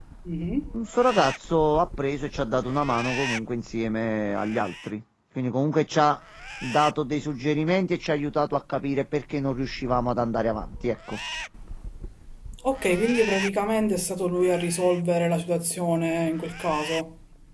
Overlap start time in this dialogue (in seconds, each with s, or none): none